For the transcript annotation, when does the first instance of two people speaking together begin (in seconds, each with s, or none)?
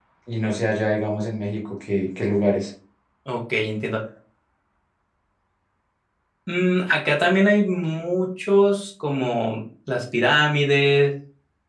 none